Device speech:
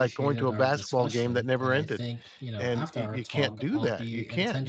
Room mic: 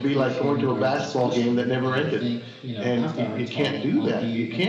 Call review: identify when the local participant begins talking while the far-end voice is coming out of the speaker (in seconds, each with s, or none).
none